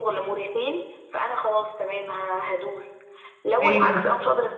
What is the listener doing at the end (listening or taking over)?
listening